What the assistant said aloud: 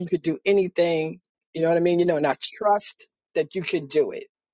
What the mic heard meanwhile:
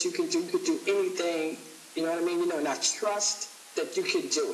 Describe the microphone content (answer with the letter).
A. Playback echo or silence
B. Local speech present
A